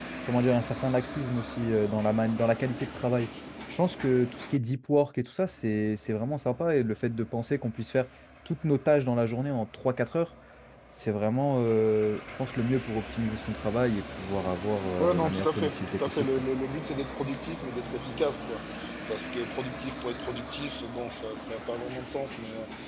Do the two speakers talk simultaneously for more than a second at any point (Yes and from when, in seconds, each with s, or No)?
Yes, from 14.9 s